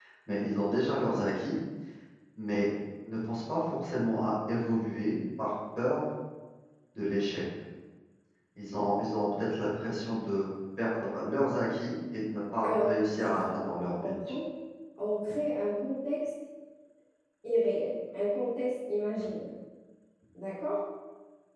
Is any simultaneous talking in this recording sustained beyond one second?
Yes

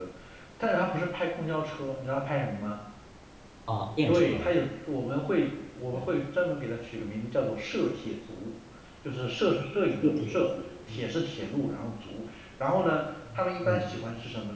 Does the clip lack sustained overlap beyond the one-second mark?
Yes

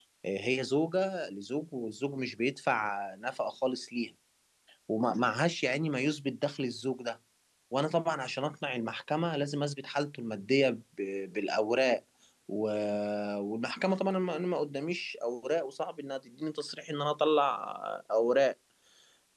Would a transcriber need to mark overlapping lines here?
No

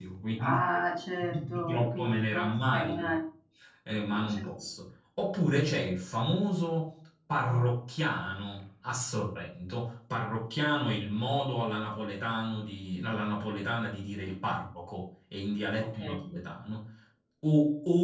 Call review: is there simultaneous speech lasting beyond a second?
Yes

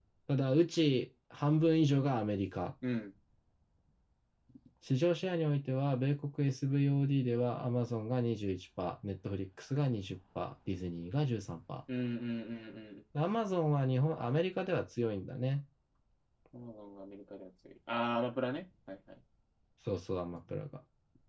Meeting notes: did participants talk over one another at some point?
No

